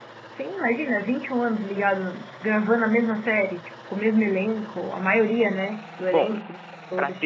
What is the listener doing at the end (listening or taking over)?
taking over